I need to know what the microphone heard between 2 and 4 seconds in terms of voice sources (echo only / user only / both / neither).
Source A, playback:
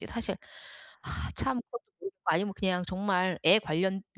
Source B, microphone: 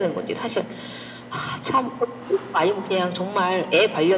echo only